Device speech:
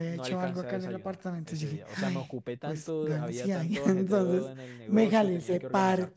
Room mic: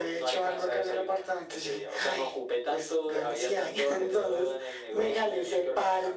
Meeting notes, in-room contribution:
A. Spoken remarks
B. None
B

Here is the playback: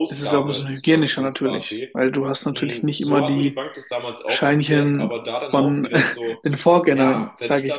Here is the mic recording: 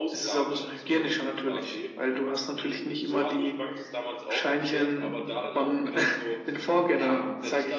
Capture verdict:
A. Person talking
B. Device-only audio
B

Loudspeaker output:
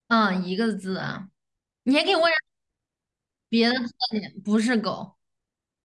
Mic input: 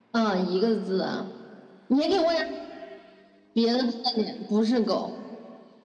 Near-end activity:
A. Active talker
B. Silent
B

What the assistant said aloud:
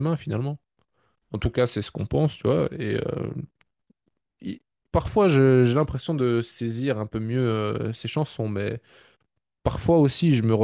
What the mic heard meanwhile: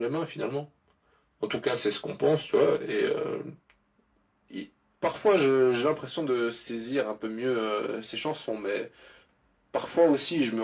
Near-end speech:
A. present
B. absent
B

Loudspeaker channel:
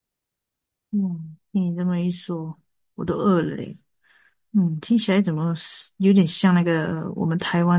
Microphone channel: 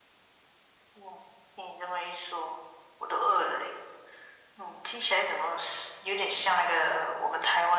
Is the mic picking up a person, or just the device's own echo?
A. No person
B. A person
A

